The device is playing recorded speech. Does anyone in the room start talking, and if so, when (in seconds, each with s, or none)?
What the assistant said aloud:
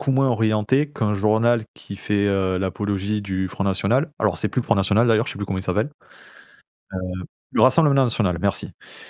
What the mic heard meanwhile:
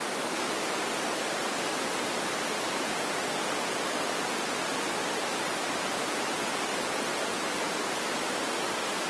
none